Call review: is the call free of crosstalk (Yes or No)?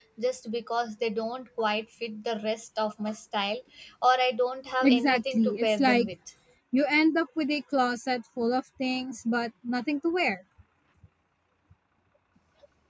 No